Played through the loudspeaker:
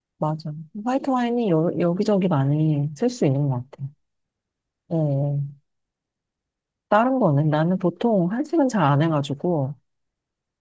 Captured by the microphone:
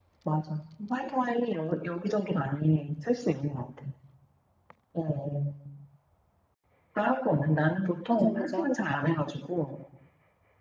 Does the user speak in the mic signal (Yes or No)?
Yes